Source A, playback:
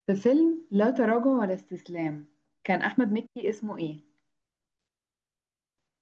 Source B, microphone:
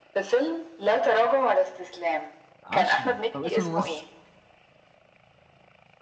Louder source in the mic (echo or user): echo